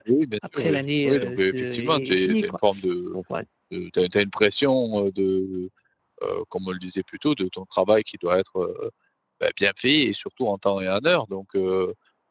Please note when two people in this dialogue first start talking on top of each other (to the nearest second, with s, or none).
1 s